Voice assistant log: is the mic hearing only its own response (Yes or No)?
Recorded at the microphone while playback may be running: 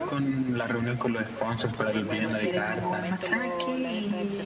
No